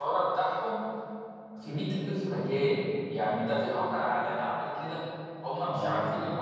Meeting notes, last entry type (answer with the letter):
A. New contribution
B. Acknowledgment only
B